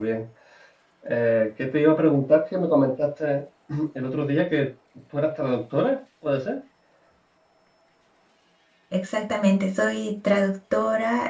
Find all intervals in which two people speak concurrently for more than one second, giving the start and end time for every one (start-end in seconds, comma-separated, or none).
none